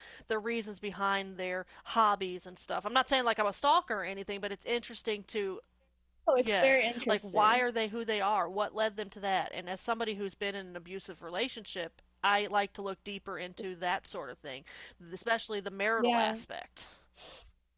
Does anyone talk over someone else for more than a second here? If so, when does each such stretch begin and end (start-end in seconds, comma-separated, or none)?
6.4-7.6